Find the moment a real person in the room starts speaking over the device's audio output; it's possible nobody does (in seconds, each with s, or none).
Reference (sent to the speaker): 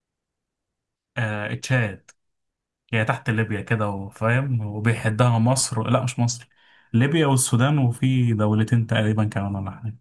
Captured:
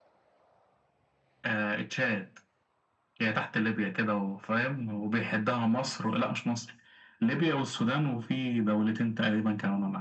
none